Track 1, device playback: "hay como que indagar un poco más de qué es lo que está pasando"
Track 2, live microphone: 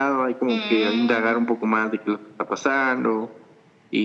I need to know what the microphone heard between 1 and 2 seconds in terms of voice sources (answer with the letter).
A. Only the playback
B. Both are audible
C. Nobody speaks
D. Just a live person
B